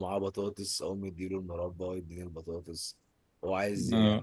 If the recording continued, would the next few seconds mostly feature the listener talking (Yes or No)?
No